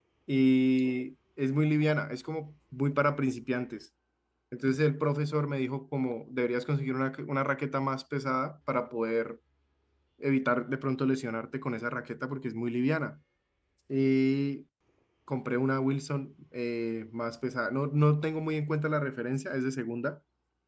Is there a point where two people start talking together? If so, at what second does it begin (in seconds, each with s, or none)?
none